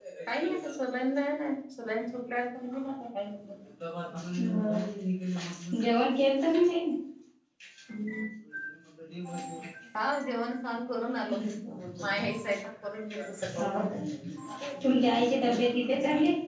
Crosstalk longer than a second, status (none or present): none